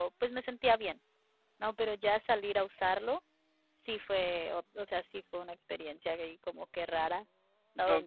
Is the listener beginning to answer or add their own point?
No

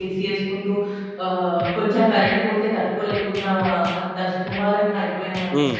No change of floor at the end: Yes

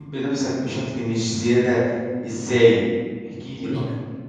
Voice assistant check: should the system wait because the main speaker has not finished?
No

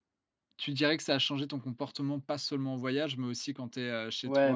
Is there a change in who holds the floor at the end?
Yes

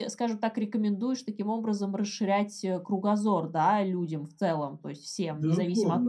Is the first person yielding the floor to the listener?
Yes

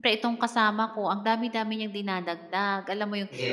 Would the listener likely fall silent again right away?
Yes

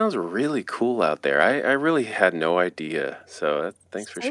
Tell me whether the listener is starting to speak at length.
Yes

